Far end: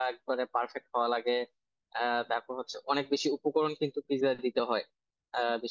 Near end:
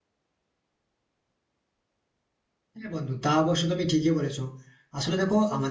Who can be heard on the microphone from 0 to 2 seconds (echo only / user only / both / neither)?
neither